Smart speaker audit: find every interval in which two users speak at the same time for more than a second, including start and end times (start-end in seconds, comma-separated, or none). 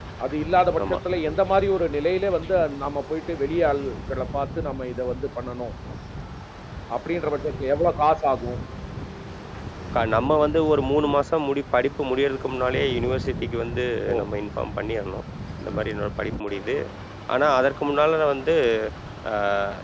none